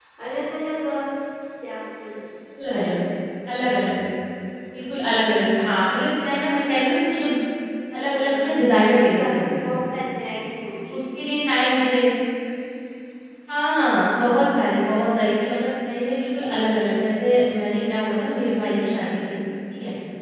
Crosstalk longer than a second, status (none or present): present